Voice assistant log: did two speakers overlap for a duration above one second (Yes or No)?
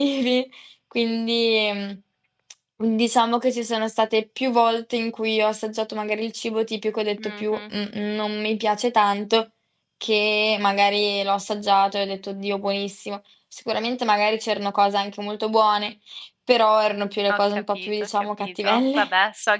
Yes